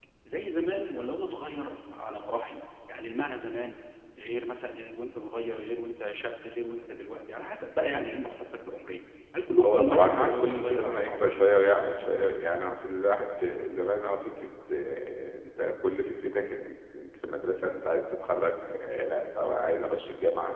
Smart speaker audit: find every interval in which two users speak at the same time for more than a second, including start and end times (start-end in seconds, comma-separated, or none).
9.6-11.2